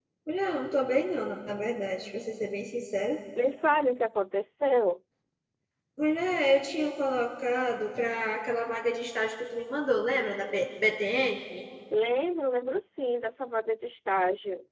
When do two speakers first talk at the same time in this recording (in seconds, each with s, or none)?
none